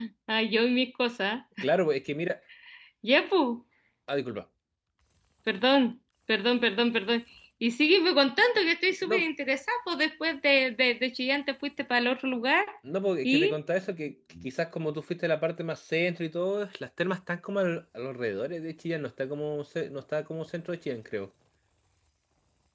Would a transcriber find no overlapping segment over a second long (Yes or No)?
Yes